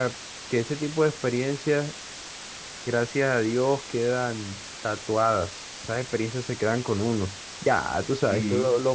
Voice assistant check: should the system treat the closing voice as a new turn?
No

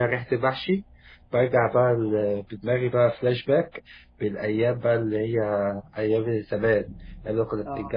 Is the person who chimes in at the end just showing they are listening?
Yes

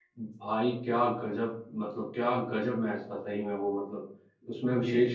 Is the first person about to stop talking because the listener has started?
No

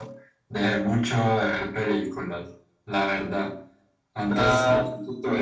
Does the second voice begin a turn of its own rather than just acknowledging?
No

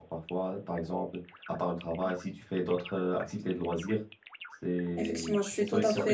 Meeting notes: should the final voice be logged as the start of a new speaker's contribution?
Yes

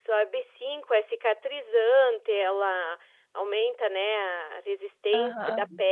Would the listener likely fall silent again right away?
Yes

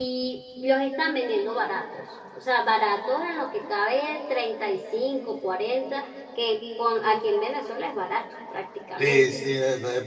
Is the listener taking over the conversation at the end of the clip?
Yes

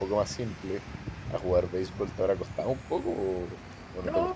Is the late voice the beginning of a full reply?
Yes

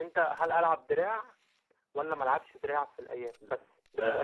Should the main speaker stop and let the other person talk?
Yes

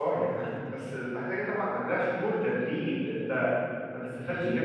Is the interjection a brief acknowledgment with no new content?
Yes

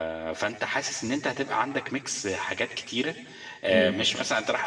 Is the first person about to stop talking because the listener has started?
No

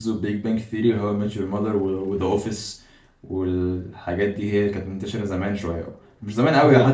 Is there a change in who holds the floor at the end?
No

